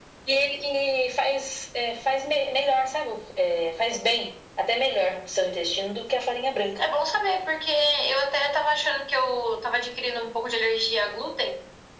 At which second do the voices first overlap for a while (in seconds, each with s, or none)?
none